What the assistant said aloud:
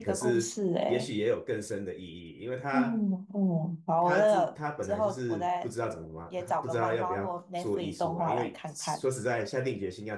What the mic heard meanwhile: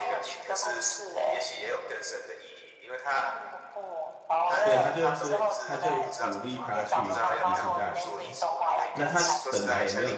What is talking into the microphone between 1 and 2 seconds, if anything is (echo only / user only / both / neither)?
echo only